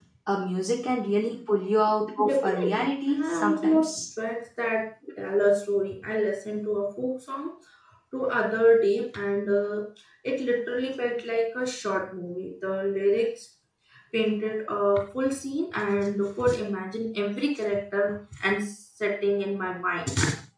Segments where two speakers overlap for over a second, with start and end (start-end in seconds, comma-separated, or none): 2.2-3.9